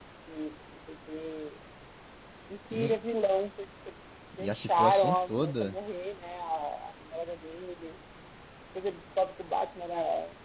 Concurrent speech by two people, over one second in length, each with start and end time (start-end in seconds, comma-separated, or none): 4.4-5.7